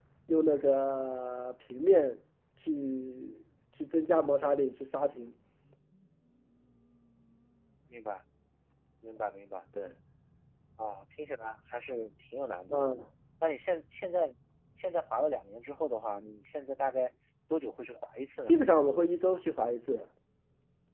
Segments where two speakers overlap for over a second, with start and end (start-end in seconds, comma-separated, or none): none